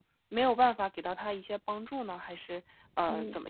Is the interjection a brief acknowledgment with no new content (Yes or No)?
No